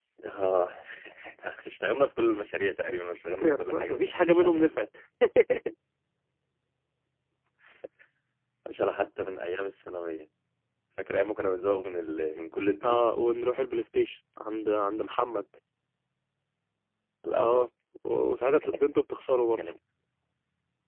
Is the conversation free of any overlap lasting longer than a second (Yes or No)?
No